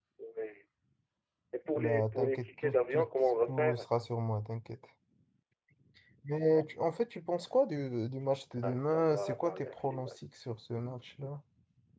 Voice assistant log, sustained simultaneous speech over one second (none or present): present